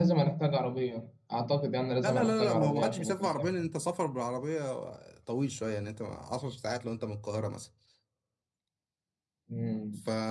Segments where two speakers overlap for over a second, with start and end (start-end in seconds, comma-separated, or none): 2.0-3.5